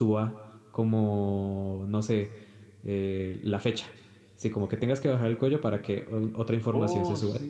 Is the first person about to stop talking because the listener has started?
Yes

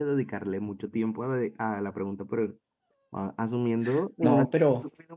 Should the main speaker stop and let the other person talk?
No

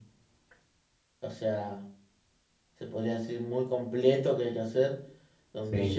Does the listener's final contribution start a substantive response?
No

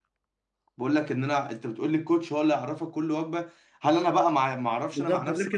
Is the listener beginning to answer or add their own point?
Yes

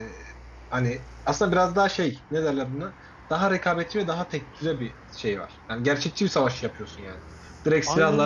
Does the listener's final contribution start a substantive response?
No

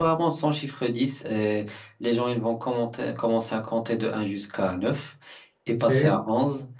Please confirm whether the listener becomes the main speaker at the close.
No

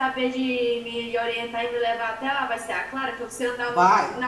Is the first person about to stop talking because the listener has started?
No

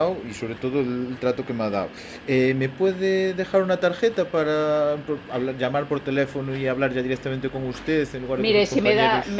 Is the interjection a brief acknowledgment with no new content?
No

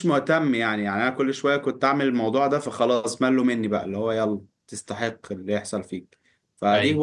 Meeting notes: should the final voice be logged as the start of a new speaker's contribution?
No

